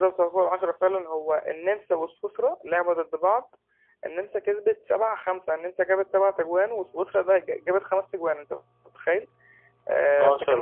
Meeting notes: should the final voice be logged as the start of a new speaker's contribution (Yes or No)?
No